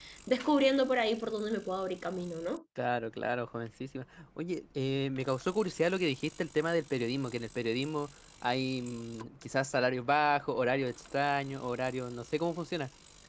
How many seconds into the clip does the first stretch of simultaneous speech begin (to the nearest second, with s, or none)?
none